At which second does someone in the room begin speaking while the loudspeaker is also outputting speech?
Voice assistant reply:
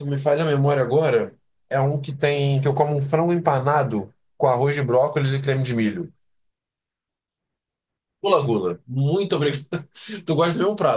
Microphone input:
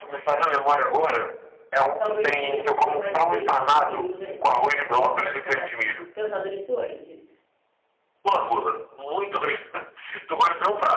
2.0 s

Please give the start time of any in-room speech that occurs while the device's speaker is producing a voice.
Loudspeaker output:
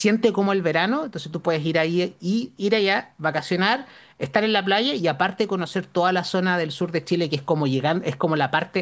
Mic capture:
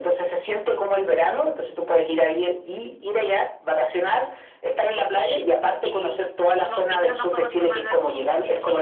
5.8 s

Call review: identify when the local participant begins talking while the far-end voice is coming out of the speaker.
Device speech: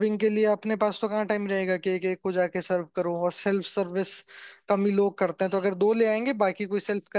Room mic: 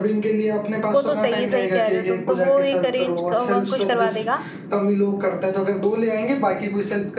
0.9 s

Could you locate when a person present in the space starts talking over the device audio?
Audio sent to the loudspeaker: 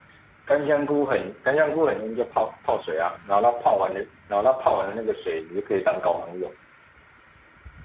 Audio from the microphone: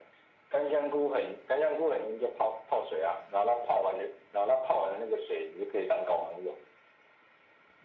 none

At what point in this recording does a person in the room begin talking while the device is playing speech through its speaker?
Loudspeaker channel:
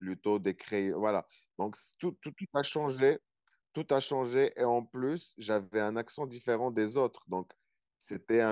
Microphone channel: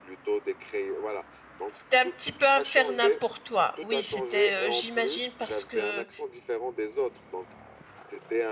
1.7 s

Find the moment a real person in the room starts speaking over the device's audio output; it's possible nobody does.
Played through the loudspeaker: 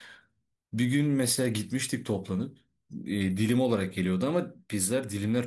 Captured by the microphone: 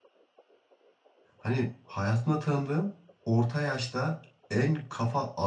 1.4 s

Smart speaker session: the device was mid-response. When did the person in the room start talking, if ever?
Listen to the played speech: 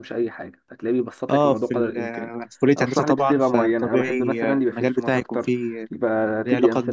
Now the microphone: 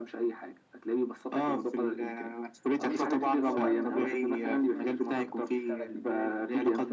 2.8 s

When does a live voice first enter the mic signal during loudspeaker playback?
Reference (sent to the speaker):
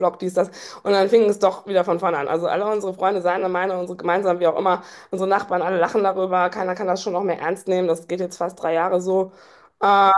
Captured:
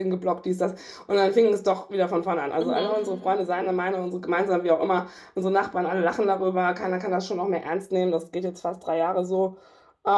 2.6 s

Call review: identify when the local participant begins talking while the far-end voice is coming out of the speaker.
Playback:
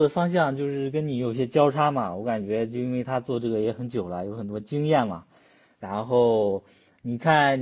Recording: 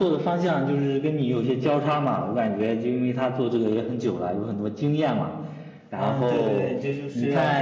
5.9 s

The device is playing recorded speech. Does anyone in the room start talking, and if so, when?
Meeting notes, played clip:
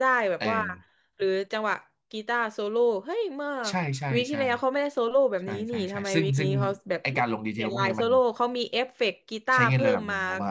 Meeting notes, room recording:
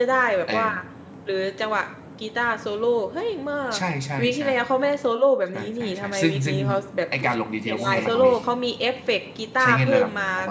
7.8 s

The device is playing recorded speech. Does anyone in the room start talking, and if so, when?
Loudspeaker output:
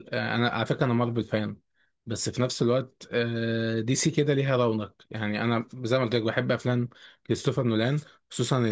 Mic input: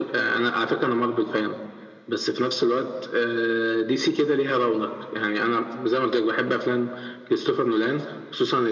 none

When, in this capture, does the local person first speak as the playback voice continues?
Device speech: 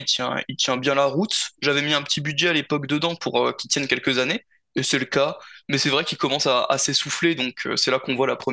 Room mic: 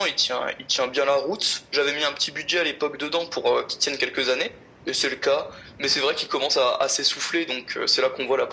none

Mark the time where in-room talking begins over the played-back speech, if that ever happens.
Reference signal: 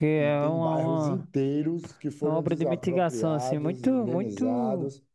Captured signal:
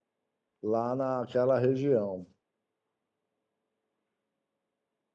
0.6 s

